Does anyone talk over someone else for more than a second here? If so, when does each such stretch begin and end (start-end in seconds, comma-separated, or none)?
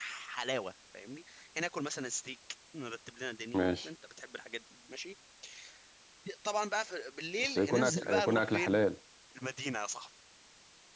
7.4-8.8